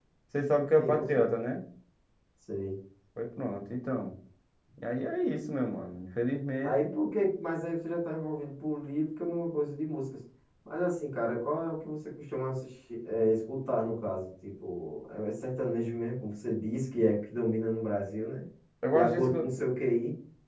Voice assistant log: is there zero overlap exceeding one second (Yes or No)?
Yes